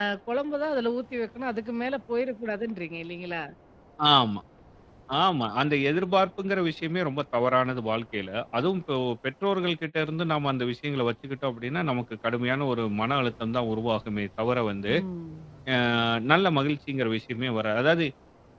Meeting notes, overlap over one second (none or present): none